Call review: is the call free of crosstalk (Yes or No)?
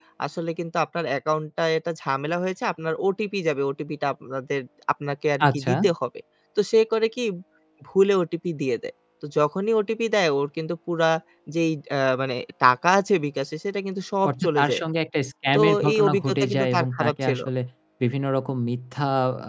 No